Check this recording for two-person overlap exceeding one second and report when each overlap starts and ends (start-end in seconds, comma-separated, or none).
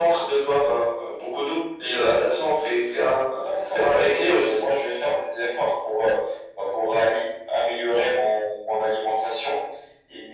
3.3-4.6